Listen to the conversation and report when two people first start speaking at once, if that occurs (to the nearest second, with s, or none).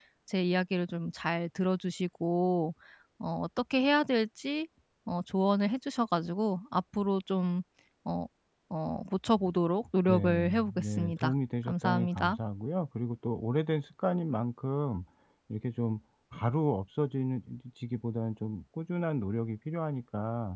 10 s